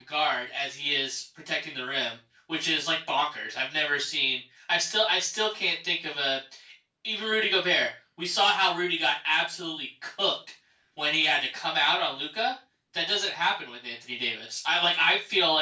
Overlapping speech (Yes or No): No